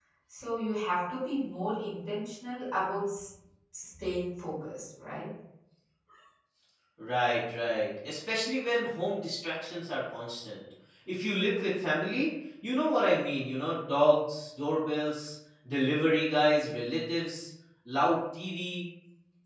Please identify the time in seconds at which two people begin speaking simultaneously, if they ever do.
none

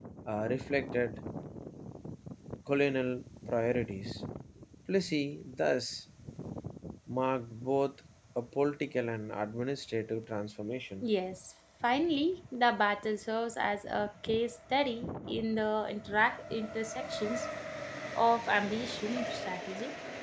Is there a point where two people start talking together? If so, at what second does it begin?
none

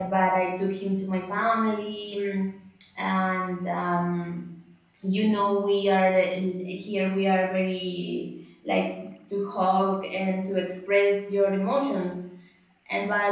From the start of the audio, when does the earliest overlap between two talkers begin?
none

